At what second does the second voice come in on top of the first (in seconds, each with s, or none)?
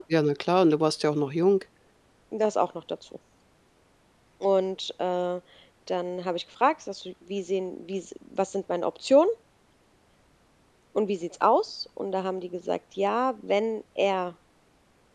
none